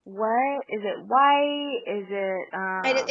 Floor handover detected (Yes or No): Yes